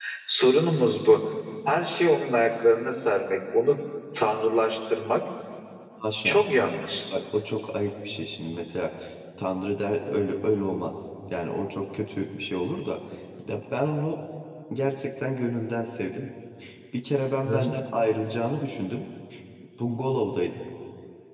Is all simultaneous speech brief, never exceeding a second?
Yes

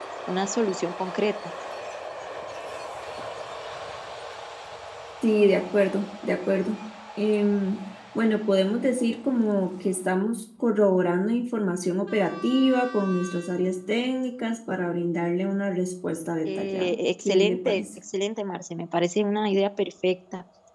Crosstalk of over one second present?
Yes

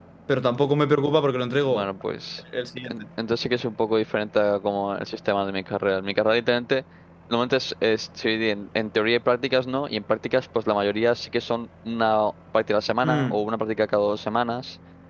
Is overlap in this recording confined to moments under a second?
Yes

